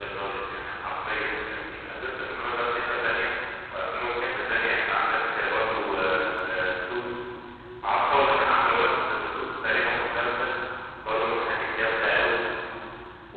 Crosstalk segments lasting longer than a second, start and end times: none

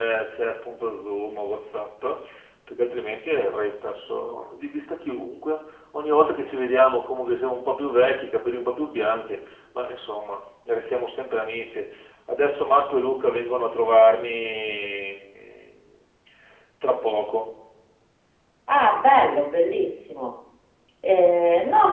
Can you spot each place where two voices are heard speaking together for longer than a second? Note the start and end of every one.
none

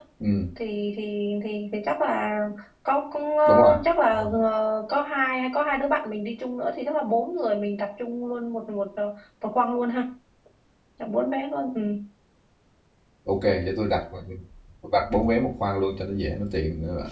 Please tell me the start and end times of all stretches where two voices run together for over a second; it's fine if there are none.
none

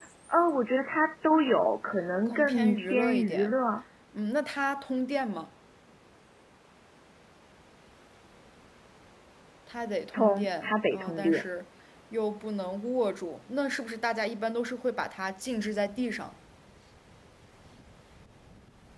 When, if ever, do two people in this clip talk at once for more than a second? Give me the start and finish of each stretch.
2.3-3.5, 10.1-11.4

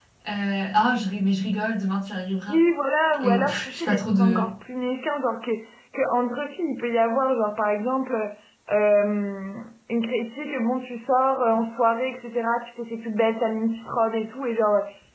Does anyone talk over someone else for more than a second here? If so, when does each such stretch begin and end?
3.2-4.5

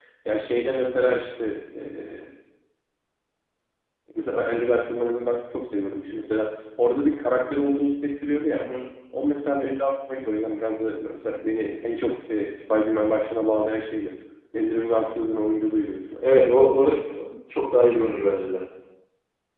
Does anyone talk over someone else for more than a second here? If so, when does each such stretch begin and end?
none

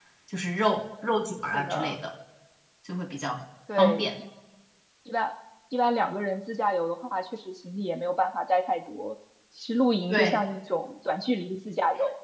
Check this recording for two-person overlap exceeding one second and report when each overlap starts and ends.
none

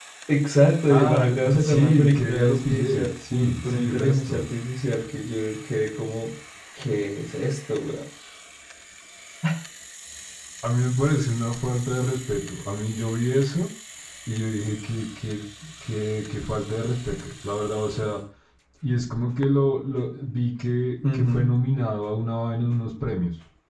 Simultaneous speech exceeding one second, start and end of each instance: 0.9-4.4

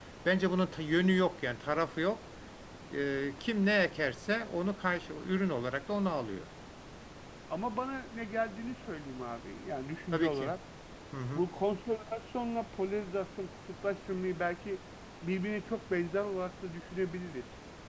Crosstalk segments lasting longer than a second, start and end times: none

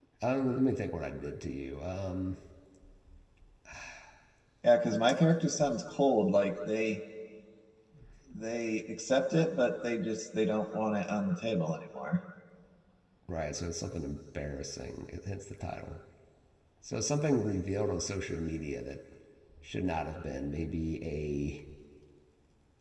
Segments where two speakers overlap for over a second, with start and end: none

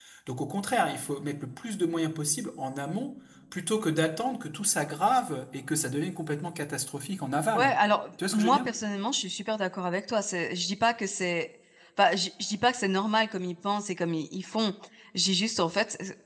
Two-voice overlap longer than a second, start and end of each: none

